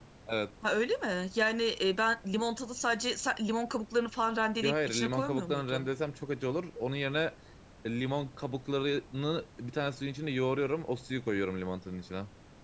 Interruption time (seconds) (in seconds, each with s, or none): 4.6 s